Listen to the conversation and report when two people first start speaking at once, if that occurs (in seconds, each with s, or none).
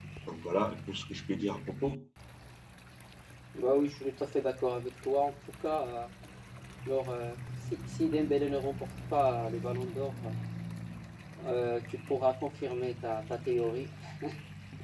none